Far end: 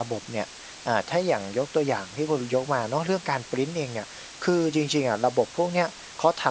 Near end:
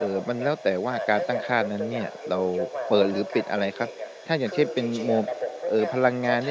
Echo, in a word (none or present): present